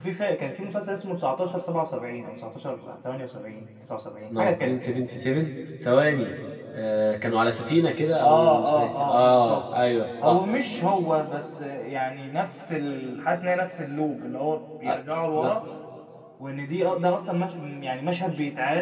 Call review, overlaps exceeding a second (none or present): present